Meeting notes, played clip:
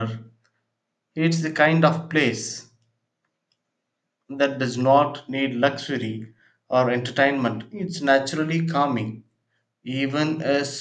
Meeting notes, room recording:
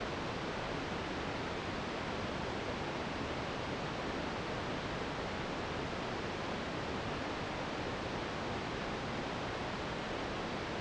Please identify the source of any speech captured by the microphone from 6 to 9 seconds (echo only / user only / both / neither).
neither